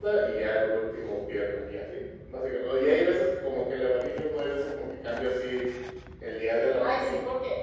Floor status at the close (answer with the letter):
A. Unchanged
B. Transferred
B